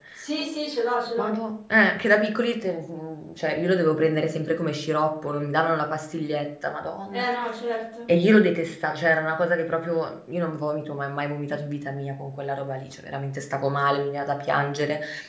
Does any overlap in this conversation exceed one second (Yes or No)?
No